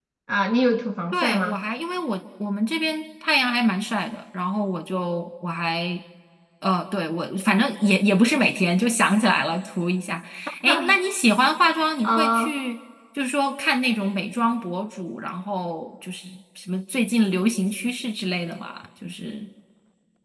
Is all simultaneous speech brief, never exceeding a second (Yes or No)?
Yes